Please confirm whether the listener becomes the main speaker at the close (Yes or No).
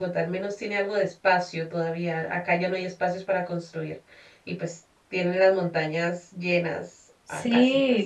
Yes